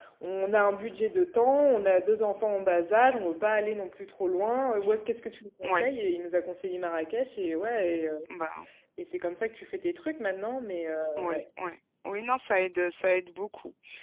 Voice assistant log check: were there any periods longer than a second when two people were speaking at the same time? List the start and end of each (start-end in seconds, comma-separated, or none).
none